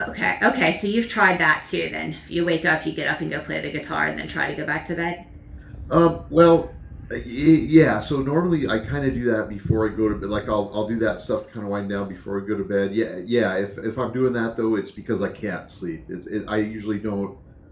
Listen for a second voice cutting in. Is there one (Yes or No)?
No